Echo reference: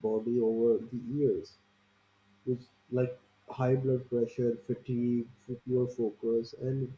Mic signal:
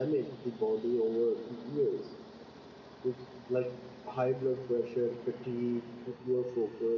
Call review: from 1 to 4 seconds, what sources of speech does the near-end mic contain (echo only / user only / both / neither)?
echo only